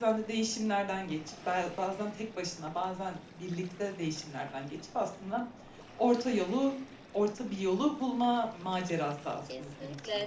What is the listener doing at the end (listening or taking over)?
taking over